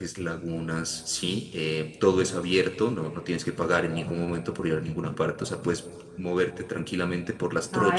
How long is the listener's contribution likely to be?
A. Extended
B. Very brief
A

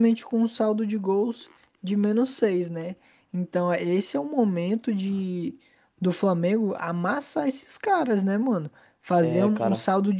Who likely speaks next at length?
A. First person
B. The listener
A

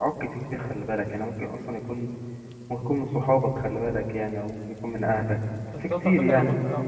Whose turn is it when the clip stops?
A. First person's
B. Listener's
B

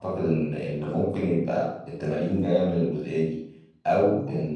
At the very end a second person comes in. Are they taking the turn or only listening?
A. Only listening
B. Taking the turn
A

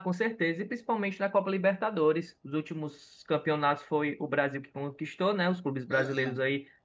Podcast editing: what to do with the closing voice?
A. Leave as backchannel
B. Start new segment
A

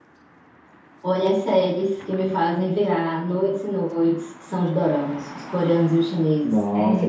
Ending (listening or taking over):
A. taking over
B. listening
A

